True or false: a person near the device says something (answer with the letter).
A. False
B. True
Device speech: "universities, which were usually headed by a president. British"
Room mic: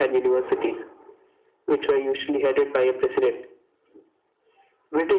A